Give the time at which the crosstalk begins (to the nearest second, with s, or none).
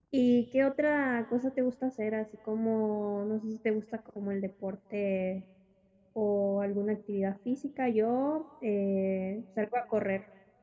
none